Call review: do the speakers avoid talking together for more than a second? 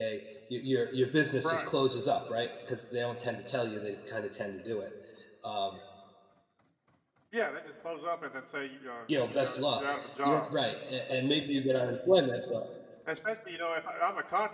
No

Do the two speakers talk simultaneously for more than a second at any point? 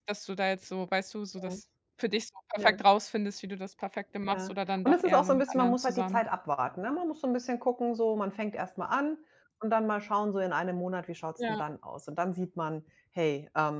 Yes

